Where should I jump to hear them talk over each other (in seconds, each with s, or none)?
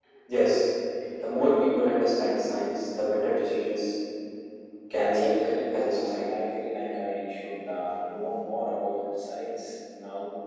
5.0 s